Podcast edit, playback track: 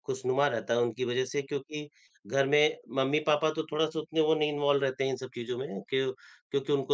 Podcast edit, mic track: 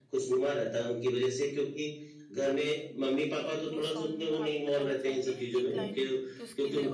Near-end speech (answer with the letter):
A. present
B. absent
A